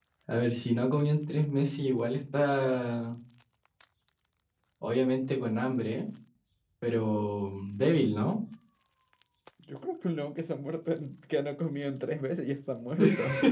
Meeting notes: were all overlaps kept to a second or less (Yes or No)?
Yes